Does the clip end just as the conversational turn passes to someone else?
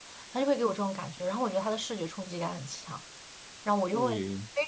No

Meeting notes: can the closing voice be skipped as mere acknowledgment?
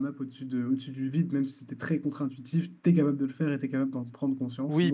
No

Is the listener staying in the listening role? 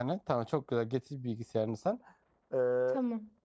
Yes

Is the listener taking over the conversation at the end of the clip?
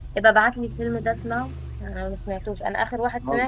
No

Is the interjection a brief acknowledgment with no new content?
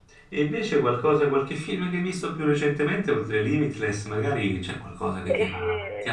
Yes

